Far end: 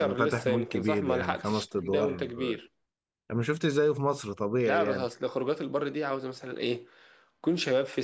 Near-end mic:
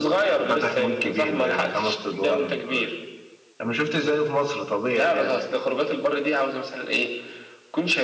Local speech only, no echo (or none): none